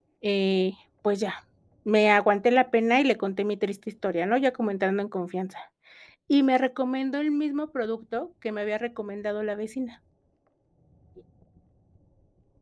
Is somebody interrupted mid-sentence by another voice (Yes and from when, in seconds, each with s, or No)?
No